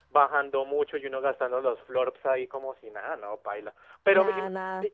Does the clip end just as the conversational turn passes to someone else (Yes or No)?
No